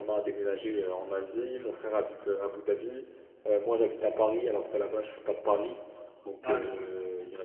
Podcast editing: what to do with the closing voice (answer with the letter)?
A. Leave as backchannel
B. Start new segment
A